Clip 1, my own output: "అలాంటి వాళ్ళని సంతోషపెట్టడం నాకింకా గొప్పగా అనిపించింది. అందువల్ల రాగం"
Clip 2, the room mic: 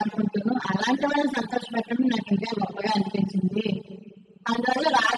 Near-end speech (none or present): none